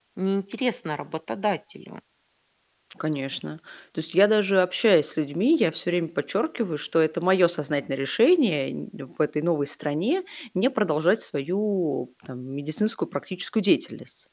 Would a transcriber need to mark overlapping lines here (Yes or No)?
No